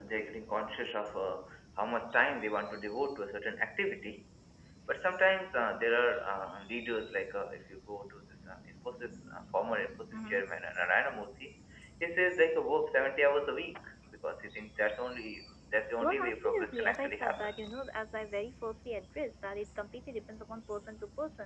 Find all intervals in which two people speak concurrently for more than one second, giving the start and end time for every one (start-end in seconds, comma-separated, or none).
16.0-17.6